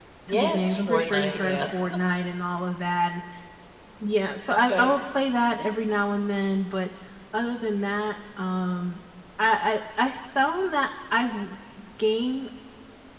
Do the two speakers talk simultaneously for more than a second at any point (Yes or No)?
Yes